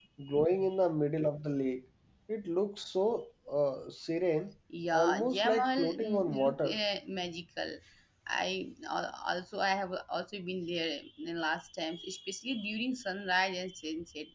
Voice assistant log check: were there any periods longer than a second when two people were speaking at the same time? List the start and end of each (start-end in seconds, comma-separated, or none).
4.9-6.8